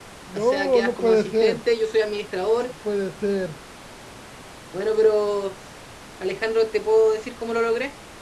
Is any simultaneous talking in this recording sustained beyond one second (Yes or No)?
Yes